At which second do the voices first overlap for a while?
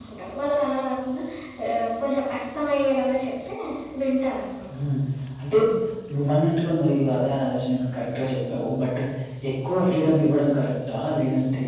none

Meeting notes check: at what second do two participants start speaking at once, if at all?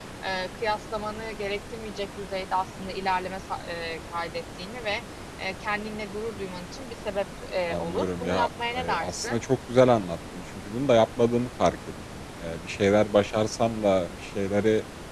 7.7 s

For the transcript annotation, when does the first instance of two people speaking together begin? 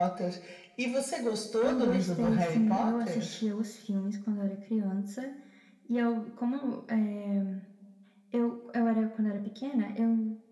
1.6 s

